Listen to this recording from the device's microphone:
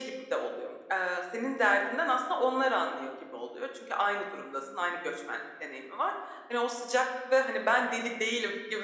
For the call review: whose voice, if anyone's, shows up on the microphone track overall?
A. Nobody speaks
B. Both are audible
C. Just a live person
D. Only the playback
D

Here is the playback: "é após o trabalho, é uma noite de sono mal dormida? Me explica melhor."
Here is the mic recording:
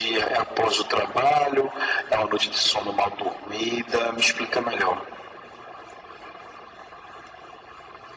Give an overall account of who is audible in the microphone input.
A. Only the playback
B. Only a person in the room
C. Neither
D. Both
A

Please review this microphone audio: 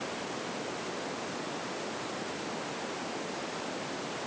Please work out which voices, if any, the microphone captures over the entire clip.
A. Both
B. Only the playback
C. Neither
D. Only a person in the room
C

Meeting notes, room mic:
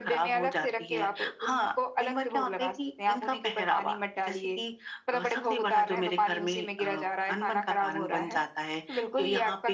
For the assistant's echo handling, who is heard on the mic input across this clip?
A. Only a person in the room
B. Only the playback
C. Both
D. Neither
B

